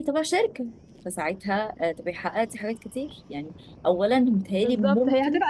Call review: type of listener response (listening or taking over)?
taking over